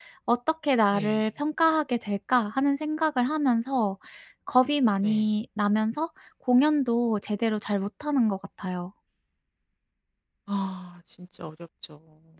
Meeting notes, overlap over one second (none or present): none